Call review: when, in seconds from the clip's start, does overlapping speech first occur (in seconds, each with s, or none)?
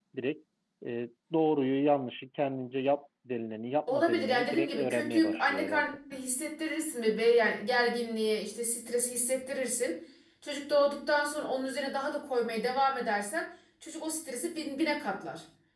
3.9 s